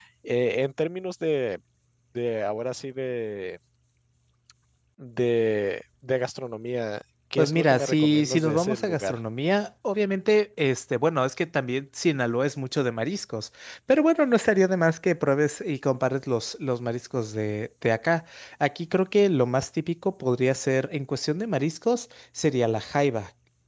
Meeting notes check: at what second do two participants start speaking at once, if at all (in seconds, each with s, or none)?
7.4 s